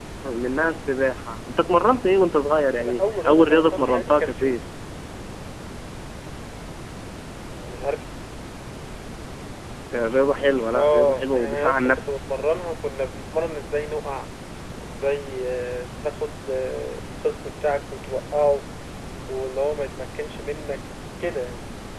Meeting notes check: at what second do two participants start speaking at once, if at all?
2.8 s

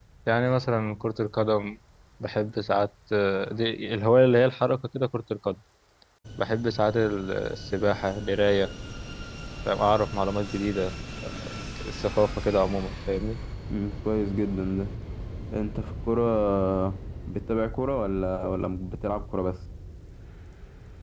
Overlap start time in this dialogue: none

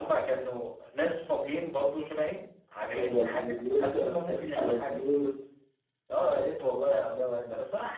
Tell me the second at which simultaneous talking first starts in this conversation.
3.0 s

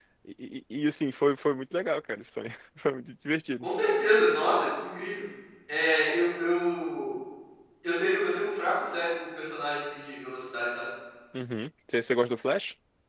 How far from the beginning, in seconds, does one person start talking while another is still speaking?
none

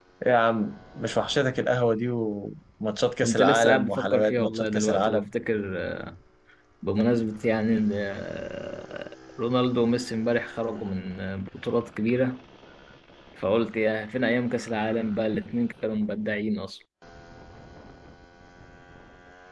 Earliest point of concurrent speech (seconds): 3.2 s

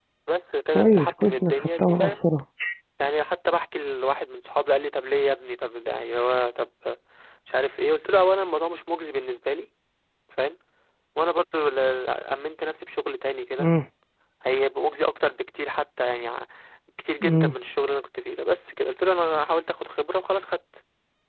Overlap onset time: 0.7 s

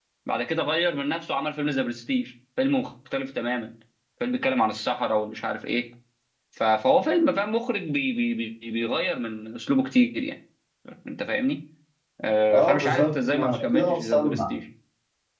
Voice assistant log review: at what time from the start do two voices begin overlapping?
12.5 s

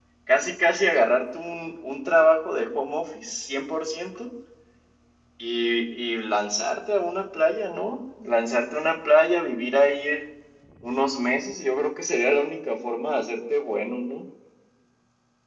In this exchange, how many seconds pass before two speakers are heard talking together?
none

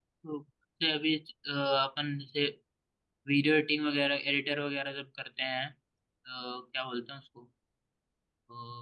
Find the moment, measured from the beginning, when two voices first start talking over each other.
none

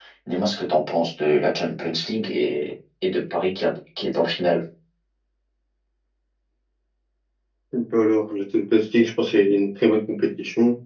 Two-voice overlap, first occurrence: none

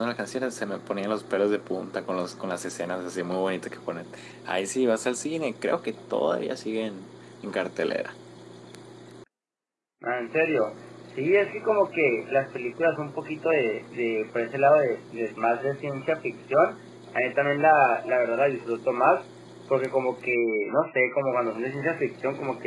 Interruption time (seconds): none

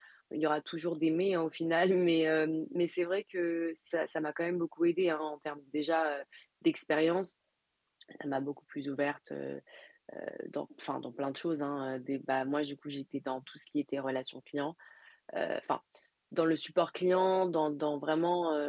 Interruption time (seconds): none

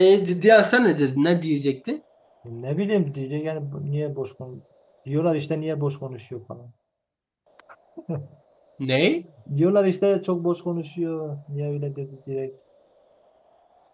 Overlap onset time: none

